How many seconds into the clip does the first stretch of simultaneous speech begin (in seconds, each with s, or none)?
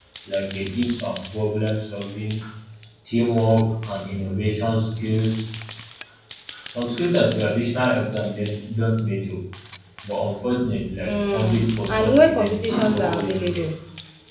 10.9 s